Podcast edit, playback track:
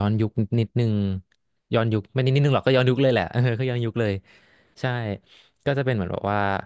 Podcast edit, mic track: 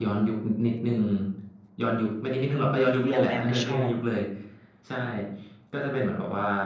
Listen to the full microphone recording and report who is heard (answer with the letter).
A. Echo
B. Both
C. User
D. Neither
B